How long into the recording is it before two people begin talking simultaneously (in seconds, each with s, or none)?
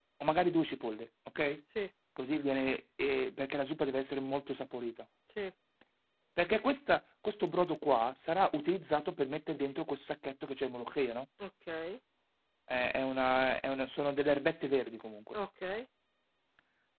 none